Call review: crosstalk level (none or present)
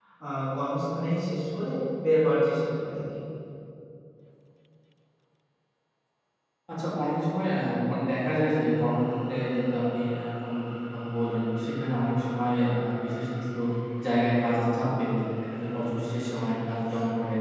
none